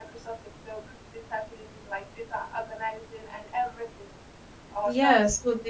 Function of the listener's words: taking over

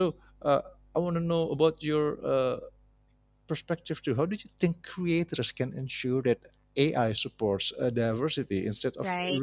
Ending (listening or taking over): taking over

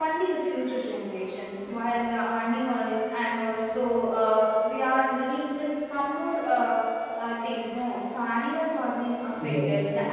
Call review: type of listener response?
listening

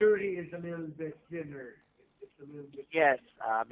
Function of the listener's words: taking over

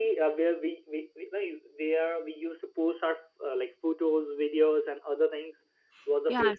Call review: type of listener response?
taking over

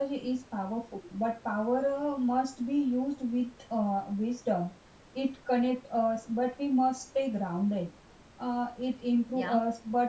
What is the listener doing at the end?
listening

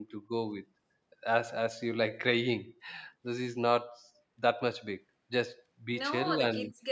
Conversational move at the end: taking over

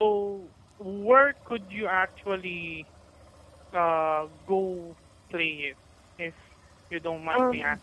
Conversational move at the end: taking over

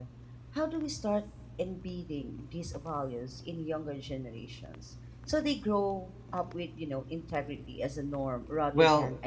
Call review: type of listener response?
taking over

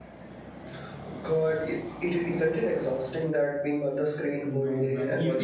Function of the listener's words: taking over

